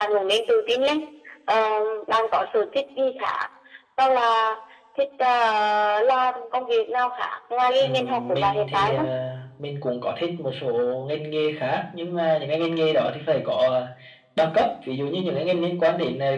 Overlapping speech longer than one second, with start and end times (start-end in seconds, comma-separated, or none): 7.8-9.1